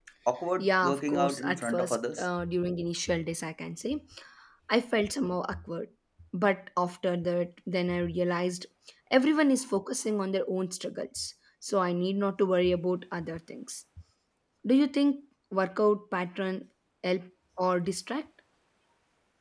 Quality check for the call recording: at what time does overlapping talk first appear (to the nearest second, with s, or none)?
1 s